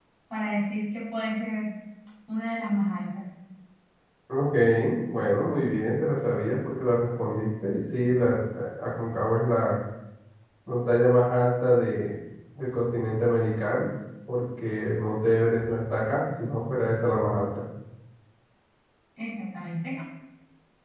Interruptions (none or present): none